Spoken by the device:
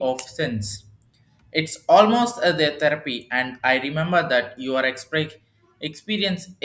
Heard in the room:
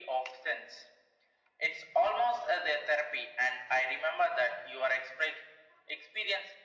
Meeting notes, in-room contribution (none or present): none